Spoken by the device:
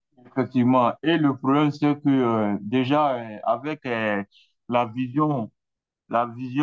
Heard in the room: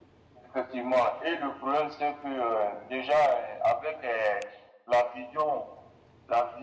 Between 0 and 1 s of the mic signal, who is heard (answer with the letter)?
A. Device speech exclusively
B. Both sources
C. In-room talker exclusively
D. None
A